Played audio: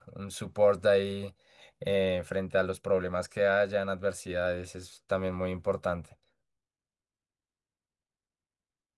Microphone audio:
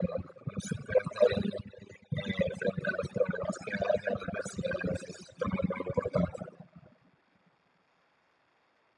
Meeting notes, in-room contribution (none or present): none